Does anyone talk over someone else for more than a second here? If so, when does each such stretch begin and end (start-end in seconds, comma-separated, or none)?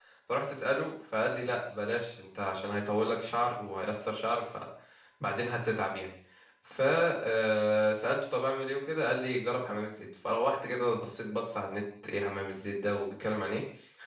none